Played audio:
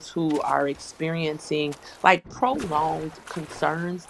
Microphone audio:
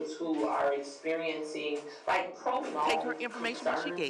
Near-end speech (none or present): present